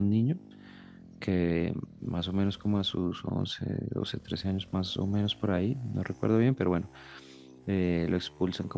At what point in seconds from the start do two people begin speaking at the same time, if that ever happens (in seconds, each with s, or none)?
none